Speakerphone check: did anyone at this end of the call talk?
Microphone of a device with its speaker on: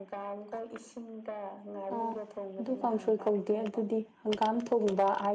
Yes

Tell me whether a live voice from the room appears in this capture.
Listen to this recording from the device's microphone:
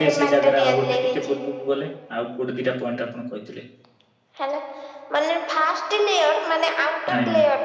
Yes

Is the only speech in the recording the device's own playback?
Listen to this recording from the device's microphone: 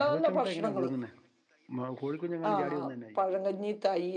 No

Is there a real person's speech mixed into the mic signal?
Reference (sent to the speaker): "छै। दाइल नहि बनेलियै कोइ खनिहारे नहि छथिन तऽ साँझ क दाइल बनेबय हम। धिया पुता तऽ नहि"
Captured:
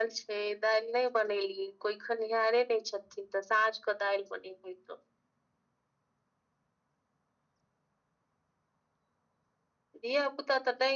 No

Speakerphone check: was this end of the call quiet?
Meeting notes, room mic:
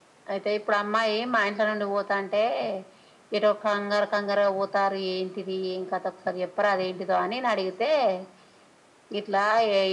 Yes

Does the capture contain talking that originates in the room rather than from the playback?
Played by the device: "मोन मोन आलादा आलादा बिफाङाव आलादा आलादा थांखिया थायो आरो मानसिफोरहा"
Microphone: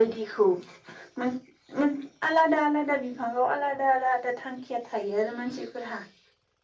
No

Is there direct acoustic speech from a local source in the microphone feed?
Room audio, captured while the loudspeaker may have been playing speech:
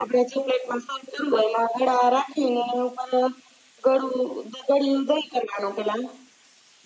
No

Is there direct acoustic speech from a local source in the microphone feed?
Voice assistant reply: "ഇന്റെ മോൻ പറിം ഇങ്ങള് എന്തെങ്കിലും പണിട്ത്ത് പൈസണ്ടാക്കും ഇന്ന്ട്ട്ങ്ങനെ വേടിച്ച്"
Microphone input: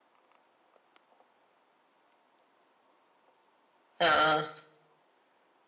Yes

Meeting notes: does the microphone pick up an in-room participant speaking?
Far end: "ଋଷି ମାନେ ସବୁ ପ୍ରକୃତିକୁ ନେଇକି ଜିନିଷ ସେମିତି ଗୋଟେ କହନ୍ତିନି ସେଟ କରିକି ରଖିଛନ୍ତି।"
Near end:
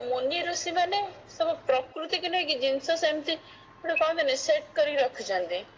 No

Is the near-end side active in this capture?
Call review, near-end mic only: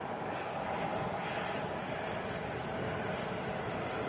No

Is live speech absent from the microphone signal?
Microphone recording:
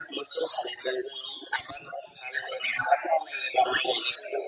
Yes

